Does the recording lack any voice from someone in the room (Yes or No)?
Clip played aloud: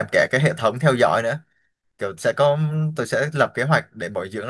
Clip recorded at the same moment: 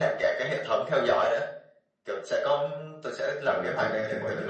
No